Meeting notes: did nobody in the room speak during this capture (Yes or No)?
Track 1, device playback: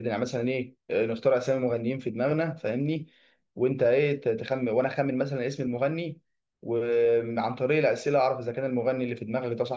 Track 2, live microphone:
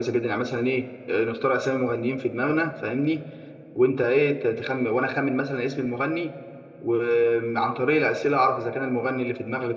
Yes